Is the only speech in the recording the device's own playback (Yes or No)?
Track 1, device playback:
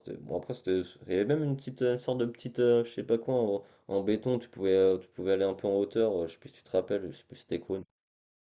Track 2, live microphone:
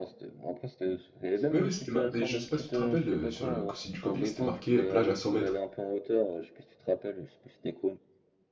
No